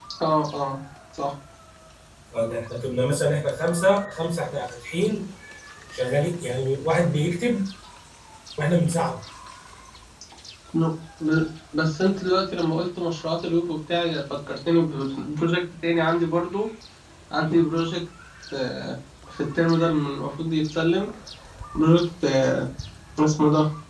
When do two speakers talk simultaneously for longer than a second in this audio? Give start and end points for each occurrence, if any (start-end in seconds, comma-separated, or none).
none